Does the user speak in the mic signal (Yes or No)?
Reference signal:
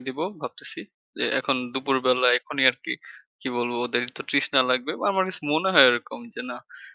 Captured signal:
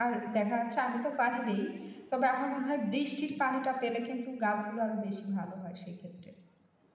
Yes